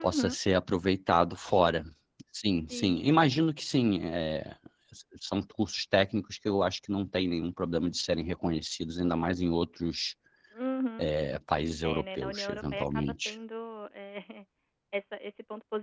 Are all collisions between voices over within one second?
No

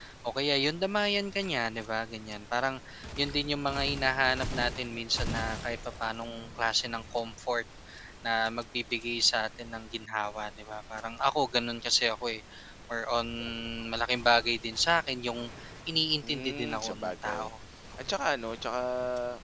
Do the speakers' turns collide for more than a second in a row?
Yes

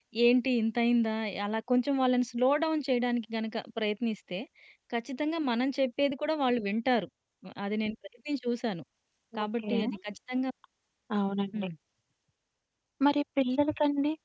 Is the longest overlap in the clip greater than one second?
No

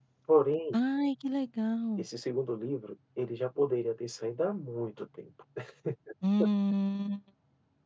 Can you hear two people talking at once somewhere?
No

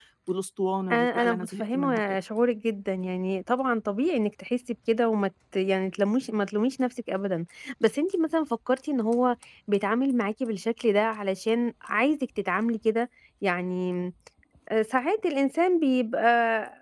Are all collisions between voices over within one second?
No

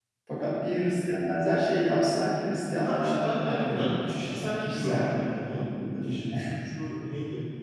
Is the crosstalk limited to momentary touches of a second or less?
No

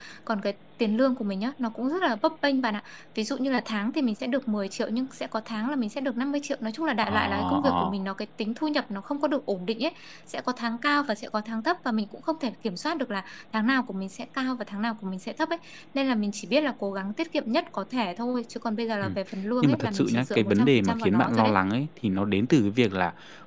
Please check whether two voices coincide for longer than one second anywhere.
Yes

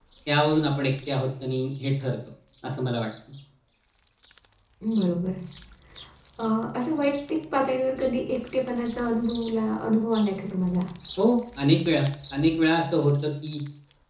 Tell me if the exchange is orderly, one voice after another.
Yes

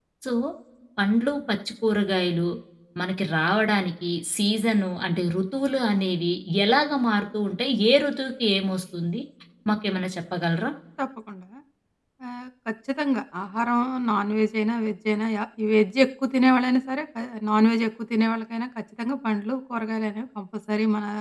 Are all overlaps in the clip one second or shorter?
Yes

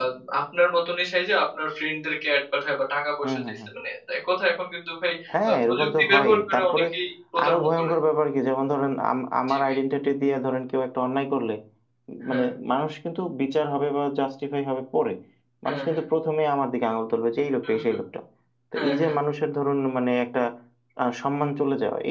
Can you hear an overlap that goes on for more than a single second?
Yes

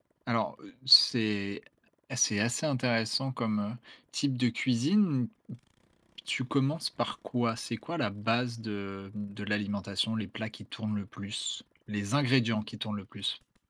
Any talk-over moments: No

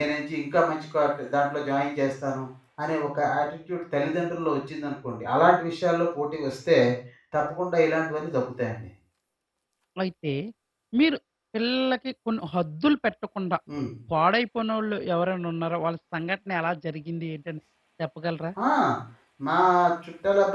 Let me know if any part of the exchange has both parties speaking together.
No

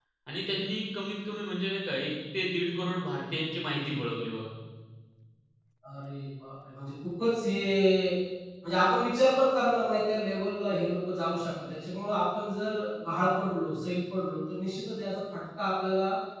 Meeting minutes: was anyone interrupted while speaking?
No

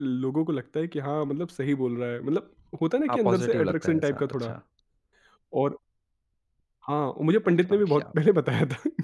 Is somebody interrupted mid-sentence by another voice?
Yes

